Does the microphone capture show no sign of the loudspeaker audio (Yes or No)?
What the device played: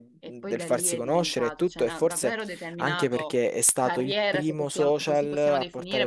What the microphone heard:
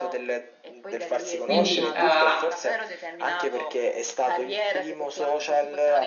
No